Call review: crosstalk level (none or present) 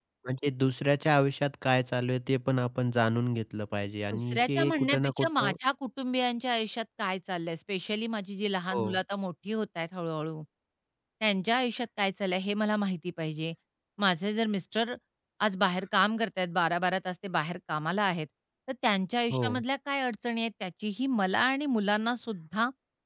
present